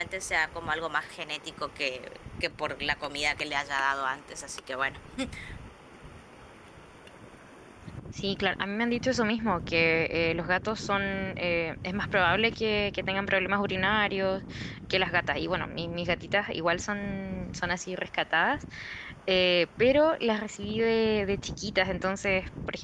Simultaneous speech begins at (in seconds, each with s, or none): none